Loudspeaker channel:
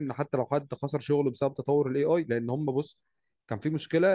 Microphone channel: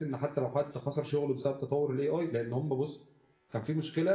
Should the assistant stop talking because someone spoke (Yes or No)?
No